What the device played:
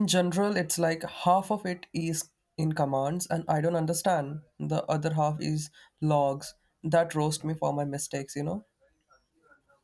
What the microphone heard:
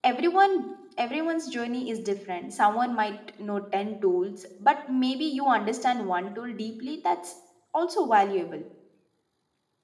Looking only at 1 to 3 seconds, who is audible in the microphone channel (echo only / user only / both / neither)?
user only